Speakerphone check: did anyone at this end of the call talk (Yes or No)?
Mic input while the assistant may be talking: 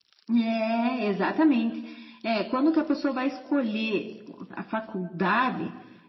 No